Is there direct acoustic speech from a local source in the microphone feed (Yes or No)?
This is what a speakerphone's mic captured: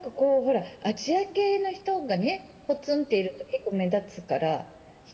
No